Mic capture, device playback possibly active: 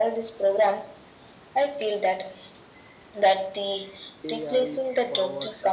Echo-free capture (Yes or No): No